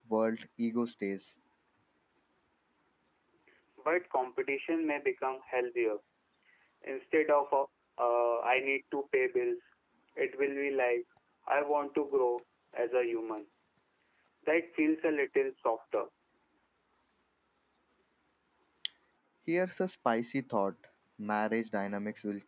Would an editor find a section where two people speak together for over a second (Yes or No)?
No